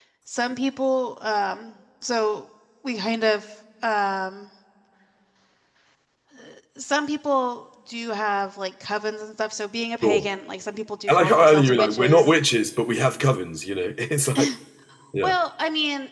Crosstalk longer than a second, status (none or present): present